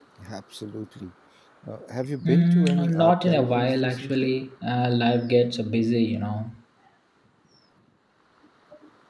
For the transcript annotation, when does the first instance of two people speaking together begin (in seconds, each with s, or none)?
2.2 s